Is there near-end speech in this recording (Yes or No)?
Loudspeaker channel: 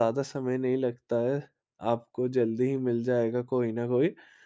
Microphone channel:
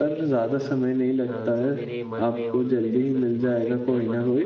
Yes